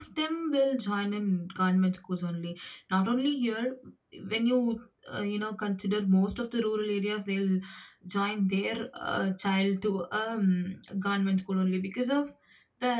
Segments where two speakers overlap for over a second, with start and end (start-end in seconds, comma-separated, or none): none